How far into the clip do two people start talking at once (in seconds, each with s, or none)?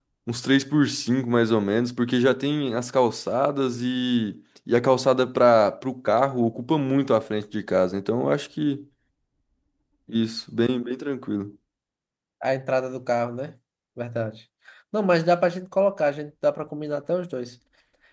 none